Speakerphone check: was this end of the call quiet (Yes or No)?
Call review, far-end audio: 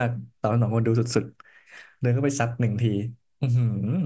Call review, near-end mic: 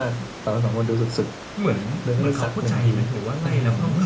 No